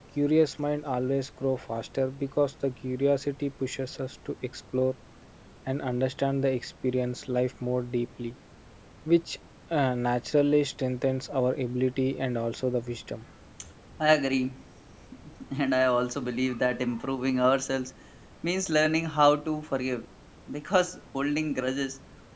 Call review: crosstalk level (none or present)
none